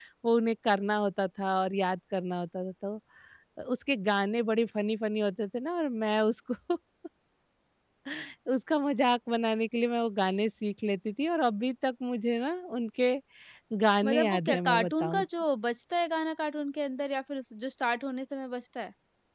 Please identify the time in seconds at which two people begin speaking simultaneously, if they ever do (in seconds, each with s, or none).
14.0 s